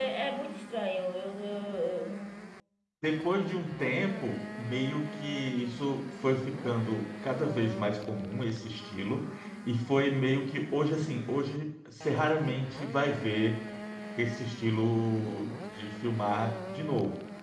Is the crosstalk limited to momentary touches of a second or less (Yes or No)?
Yes